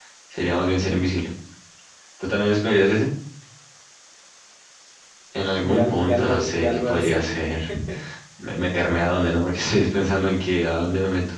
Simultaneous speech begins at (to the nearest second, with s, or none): 6 s